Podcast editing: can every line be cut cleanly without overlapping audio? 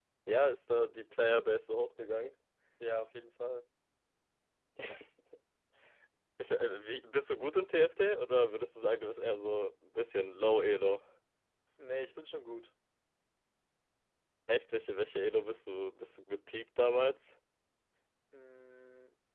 Yes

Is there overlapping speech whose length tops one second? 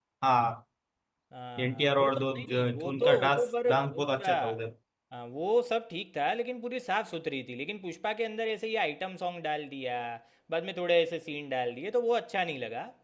Yes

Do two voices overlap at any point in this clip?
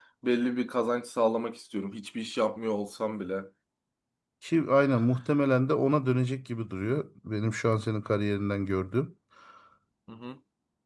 No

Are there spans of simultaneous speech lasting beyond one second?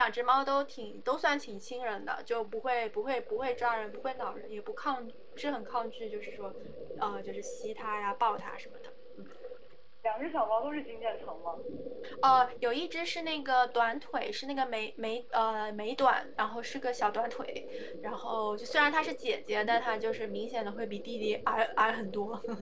No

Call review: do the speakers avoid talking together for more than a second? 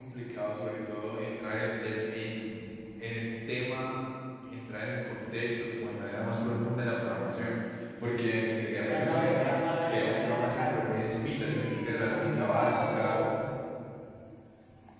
No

